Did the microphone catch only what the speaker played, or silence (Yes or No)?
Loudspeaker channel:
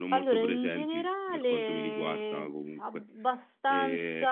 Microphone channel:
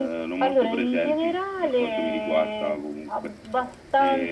Yes